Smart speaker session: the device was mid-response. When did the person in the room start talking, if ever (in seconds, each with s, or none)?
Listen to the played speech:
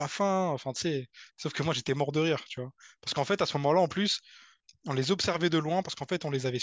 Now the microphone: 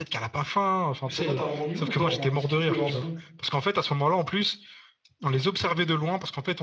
1.0 s